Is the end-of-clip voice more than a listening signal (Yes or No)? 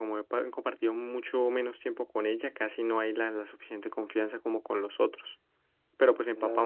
No